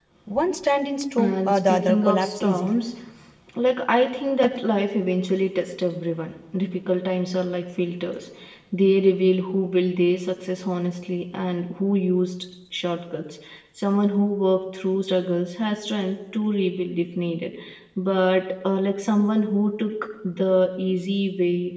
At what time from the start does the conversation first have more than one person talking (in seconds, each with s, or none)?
1.2 s